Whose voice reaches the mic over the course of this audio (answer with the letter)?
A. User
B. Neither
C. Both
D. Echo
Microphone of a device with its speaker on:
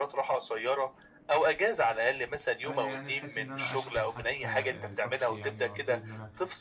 C